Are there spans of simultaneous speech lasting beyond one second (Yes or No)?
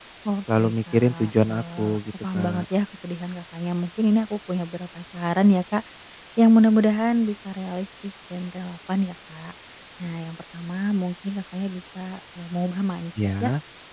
Yes